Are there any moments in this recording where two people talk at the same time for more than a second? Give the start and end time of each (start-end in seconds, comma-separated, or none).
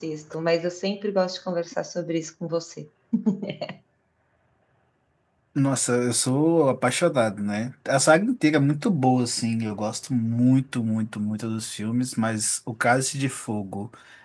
none